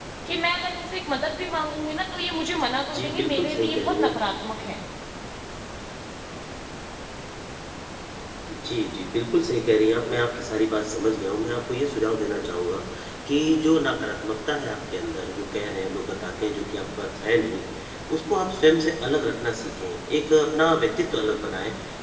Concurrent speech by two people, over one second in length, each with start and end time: 2.9-4.1

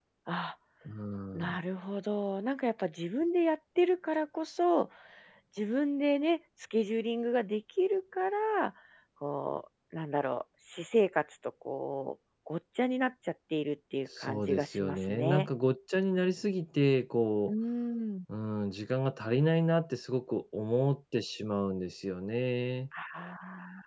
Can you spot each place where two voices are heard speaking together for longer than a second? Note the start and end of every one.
14.2-15.5

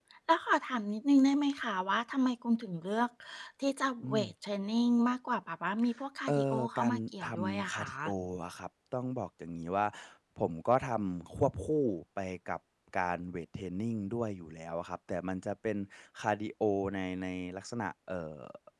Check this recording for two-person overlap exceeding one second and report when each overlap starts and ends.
6.3-7.9

